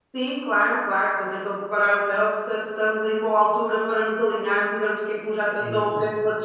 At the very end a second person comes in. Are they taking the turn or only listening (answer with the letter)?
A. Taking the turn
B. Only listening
B